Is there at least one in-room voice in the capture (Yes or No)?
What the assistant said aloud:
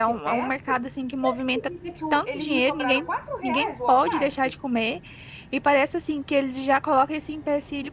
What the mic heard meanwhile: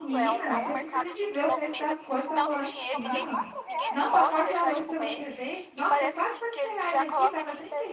Yes